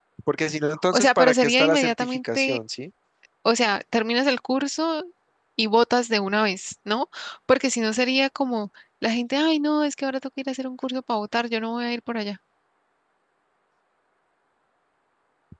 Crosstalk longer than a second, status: present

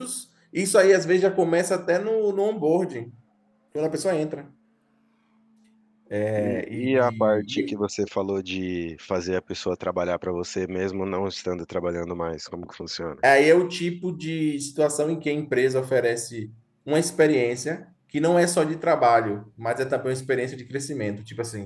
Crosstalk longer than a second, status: present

